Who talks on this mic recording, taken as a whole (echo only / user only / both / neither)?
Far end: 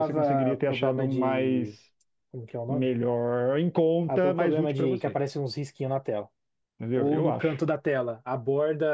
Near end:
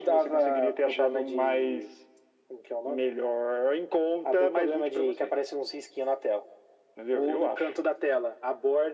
echo only